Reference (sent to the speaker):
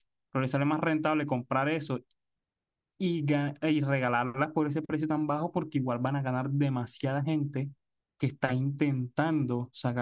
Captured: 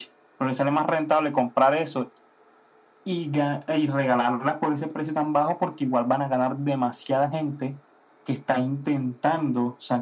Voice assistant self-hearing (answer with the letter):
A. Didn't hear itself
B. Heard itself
B